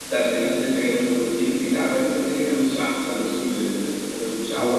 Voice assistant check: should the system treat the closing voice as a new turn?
Yes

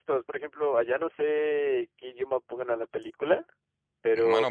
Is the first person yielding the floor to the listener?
Yes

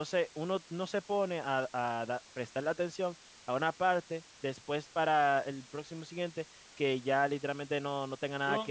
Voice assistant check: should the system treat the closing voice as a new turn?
Yes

